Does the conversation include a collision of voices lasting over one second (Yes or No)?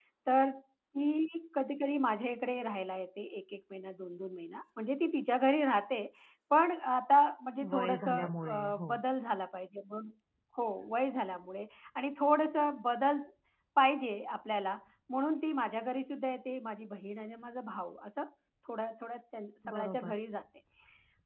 Yes